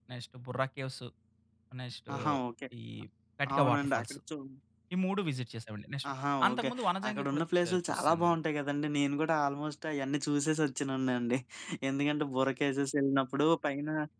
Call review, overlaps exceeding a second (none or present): present